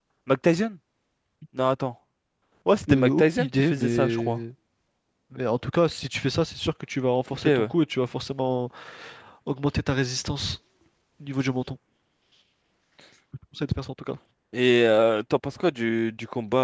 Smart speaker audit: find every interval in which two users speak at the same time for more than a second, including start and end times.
2.9-4.4

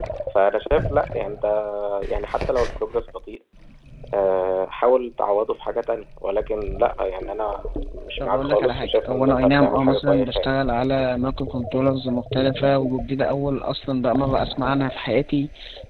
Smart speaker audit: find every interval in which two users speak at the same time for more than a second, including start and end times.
8.2-10.5

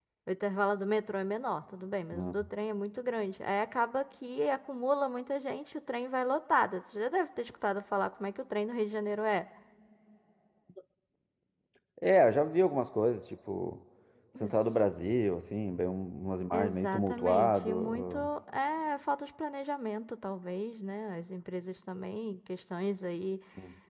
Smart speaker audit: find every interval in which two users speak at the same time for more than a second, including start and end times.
16.5-18.3

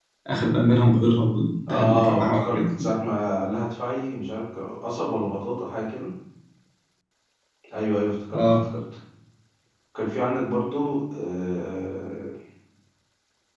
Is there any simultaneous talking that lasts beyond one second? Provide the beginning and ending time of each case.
1.7-2.9

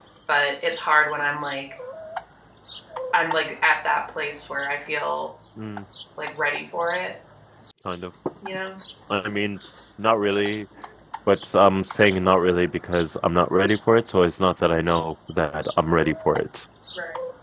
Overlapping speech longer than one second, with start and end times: none

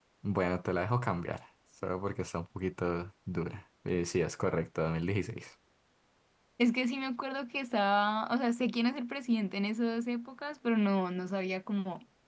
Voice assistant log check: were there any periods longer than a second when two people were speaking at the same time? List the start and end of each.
none

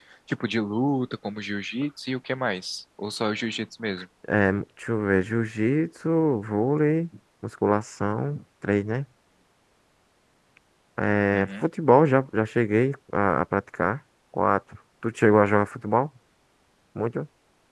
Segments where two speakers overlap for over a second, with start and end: none

